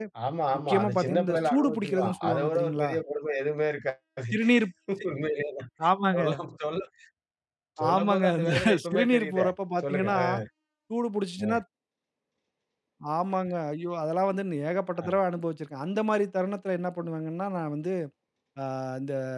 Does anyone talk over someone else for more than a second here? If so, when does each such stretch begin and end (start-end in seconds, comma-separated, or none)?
0.7-2.9, 7.9-9.5